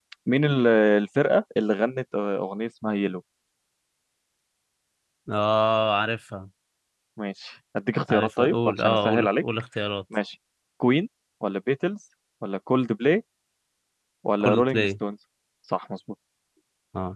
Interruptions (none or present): present